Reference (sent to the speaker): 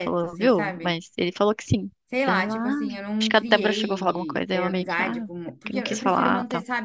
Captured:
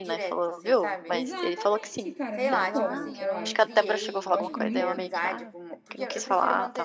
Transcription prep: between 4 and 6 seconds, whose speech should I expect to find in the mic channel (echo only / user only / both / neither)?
both